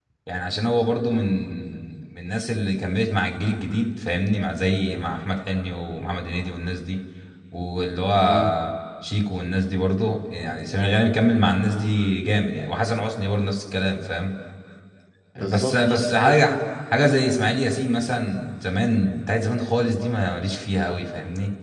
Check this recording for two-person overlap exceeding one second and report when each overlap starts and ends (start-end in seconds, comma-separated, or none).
15.4-16.6